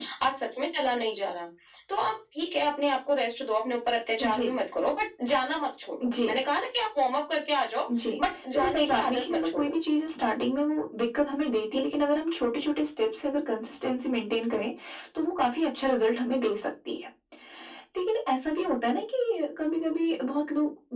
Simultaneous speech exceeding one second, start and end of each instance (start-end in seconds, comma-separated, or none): 8.5-9.8